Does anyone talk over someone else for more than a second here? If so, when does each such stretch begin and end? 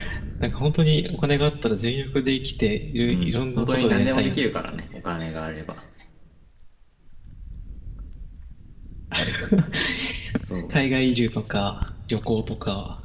3.1-4.8

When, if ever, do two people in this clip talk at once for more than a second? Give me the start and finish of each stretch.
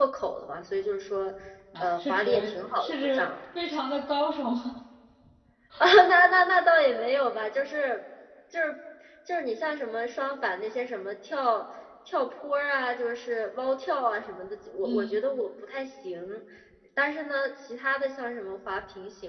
1.8-3.4

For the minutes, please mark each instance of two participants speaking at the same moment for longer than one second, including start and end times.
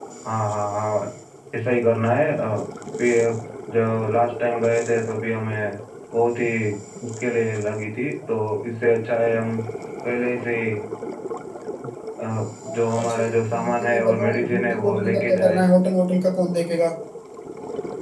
12.8-15.6

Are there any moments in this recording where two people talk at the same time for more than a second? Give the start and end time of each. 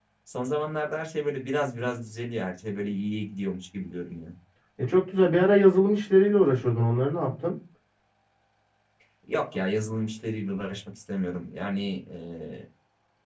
none

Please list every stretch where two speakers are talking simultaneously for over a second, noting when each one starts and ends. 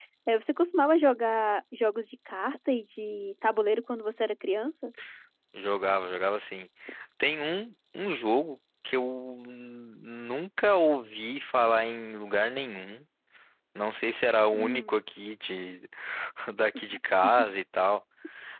none

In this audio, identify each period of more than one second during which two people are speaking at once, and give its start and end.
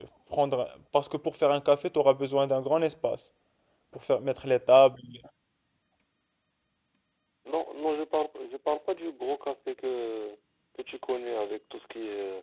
none

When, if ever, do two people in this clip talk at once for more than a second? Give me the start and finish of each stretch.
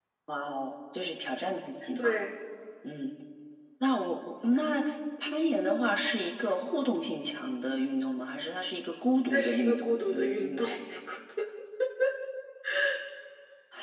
9.3-10.6

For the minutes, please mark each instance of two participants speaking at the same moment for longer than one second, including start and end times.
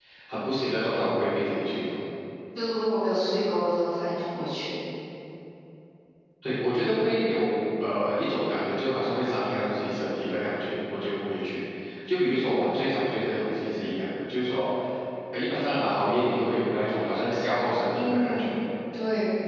none

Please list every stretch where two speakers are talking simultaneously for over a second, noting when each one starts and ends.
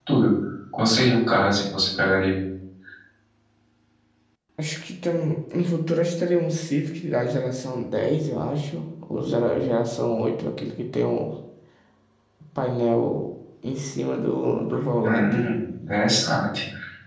none

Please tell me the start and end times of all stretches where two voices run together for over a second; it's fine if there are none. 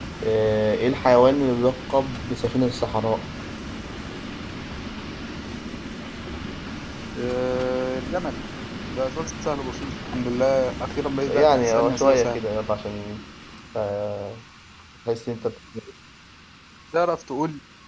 11.3-12.5

